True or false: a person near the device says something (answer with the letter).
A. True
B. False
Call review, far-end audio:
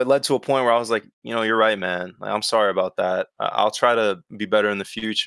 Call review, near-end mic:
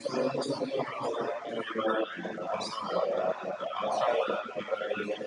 B